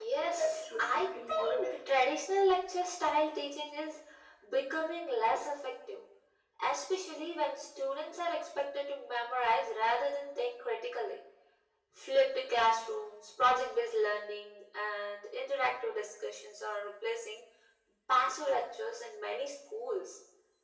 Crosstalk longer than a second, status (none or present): present